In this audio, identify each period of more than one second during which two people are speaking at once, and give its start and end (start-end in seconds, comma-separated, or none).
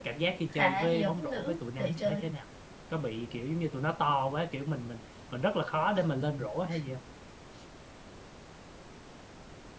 0.5-2.2